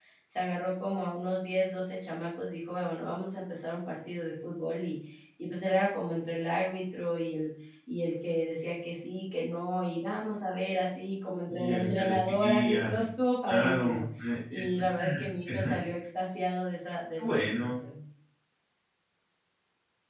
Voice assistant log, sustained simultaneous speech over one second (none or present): present